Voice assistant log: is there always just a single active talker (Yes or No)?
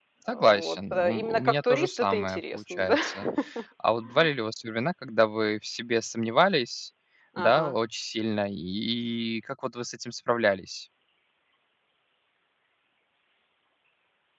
No